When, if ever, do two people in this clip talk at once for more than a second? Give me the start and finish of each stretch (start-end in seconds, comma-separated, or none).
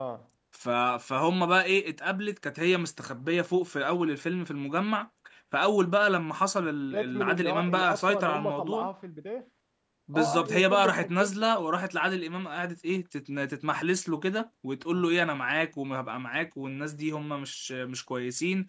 6.8-8.9, 10.1-11.4